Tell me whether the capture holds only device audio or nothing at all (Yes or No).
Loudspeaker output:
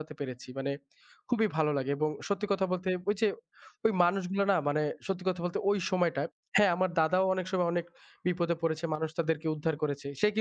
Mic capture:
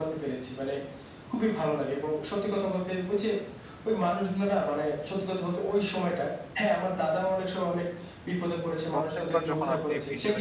No